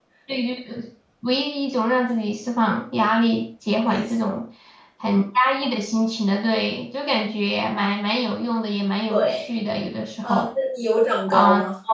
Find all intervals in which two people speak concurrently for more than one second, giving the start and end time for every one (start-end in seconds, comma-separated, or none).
none